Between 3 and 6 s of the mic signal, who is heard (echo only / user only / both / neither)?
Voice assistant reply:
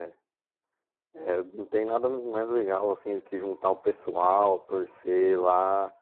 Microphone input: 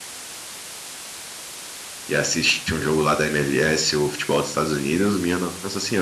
user only